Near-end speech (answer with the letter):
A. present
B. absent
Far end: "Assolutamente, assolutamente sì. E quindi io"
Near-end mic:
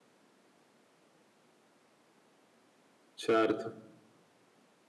A